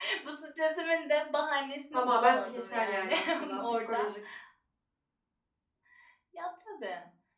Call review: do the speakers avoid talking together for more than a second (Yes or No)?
No